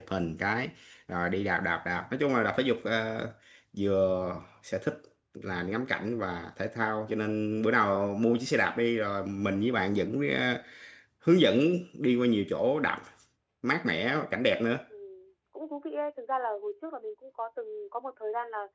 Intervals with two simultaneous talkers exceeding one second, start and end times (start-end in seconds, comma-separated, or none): none